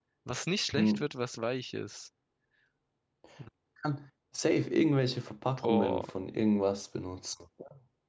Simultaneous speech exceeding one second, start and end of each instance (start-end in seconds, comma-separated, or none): none